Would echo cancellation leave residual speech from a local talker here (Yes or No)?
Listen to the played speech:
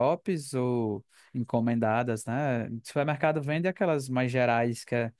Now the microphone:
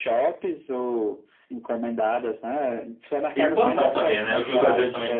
Yes